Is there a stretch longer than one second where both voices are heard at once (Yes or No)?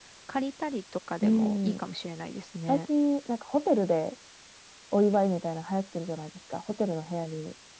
No